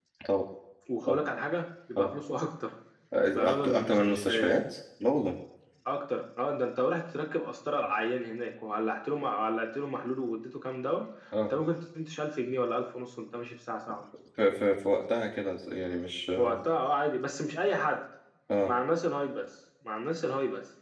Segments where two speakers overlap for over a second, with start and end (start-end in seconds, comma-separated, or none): 3.4-4.6